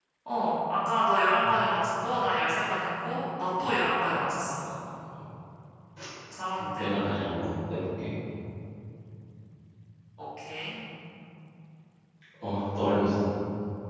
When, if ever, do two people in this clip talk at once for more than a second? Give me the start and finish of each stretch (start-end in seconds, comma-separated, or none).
none